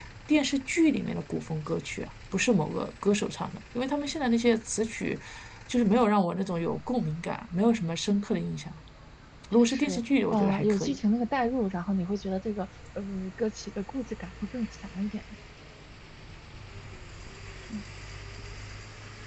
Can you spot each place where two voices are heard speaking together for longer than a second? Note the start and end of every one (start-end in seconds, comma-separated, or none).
9.5-11.0